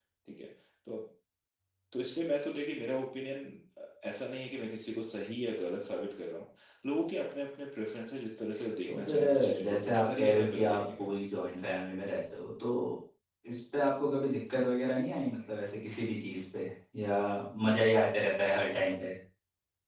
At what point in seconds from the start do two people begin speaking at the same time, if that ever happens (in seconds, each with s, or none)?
8.9 s